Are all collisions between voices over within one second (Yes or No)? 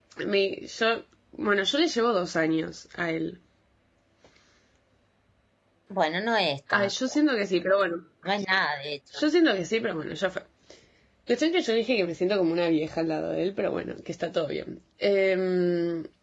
Yes